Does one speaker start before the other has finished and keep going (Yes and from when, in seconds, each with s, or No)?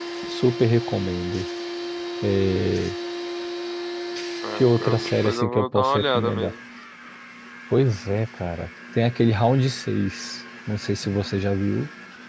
Yes, from 4.5 s